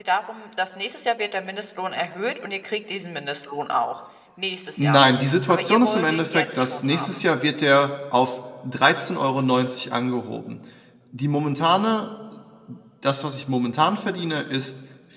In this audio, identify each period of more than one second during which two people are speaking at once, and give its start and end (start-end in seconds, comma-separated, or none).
5.5-7.2